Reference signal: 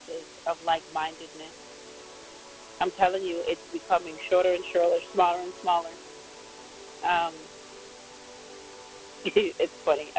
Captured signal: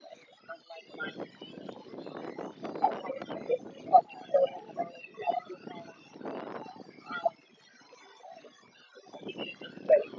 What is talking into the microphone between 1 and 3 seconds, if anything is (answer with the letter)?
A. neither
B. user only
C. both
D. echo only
D